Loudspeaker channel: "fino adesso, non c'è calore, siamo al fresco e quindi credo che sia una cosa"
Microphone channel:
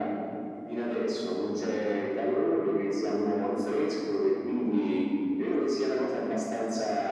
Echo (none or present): present